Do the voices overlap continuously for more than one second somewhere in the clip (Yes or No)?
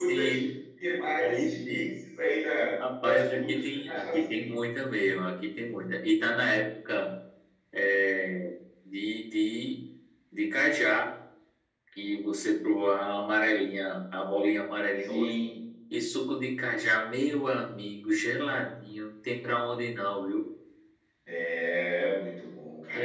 Yes